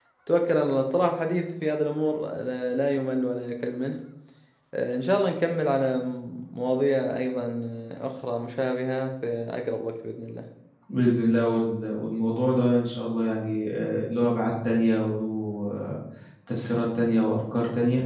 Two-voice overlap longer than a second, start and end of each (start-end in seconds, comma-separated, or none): none